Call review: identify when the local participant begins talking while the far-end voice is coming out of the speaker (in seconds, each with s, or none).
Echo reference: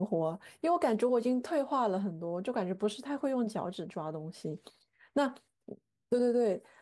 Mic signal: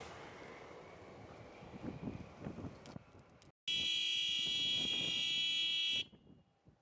none